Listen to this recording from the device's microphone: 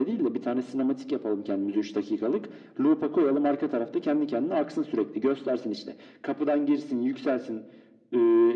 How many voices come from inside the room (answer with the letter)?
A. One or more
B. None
B